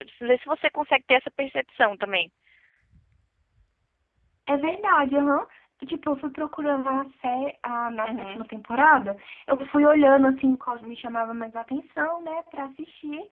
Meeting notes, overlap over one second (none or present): none